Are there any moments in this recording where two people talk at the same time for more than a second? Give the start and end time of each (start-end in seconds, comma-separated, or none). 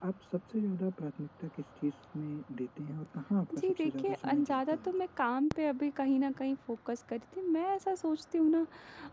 3.6-4.9